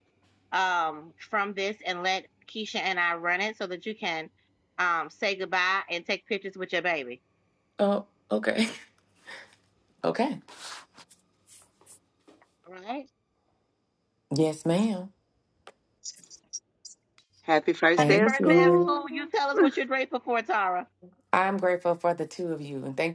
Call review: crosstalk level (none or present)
present